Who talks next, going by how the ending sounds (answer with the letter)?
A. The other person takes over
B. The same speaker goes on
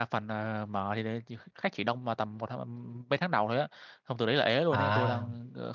B